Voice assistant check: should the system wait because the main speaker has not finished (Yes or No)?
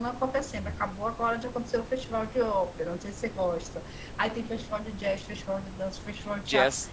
Yes